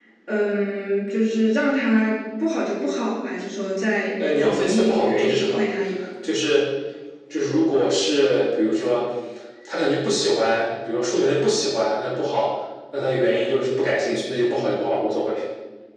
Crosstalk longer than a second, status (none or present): present